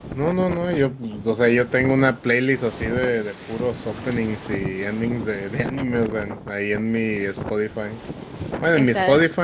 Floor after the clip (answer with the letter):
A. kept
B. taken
A